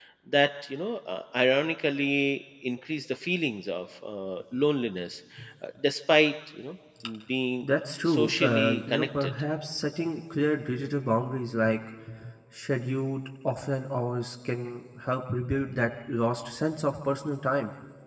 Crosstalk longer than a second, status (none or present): present